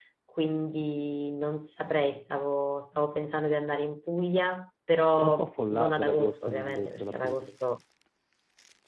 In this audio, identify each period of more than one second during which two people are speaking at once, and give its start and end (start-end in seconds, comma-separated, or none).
5.2-7.5